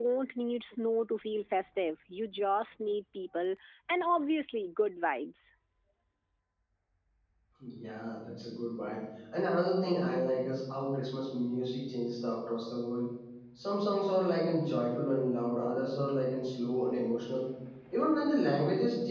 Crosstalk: none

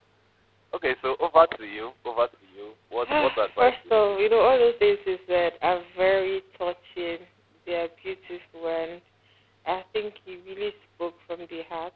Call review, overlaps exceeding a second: present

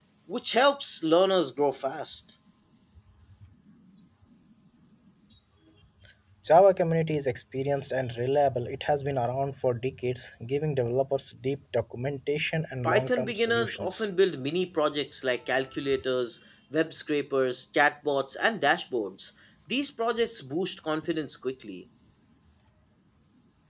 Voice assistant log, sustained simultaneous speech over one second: present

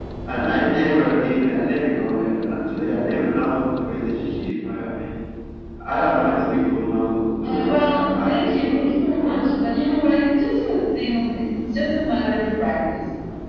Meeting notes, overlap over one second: present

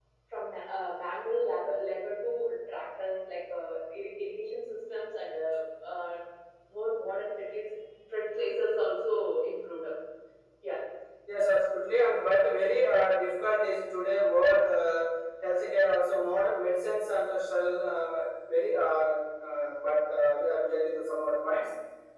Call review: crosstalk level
none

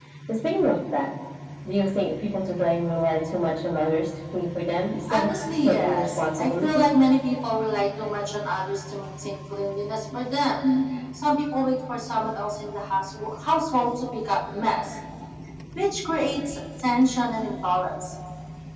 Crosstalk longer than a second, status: present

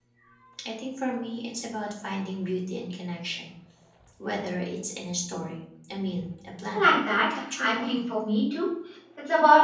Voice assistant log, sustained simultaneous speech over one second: present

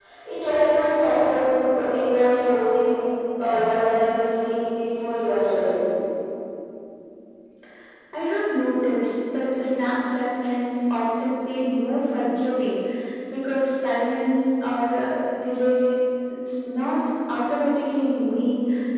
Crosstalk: none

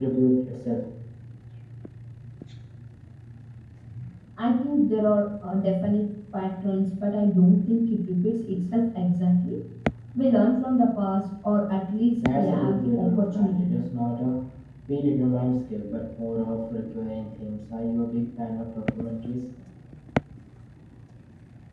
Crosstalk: present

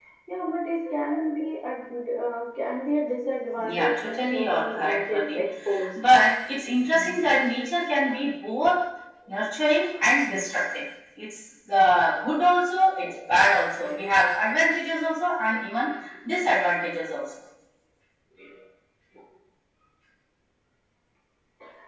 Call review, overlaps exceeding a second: present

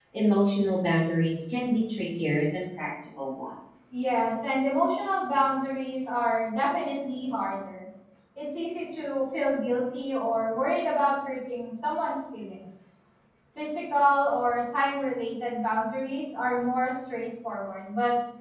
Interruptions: none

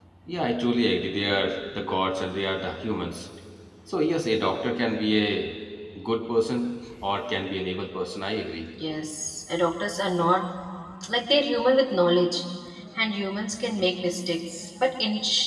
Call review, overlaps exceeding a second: none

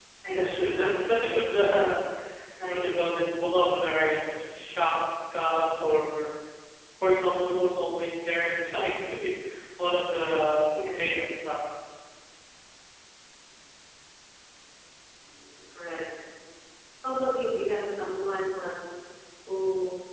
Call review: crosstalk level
present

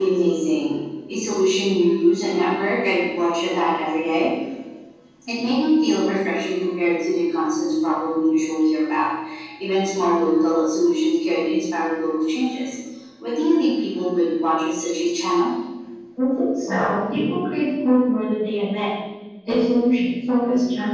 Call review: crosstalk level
none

